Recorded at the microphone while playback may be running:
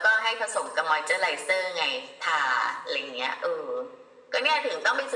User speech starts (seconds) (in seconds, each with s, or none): none